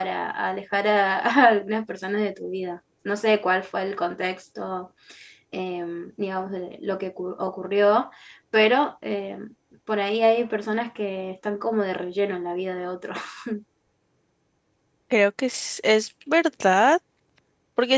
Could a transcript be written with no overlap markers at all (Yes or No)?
Yes